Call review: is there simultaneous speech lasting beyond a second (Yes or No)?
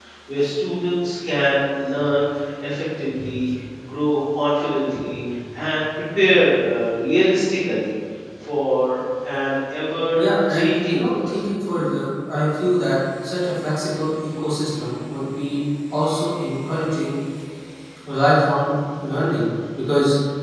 Yes